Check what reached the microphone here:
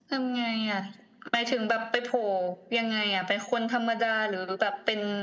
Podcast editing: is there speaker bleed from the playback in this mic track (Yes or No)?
Yes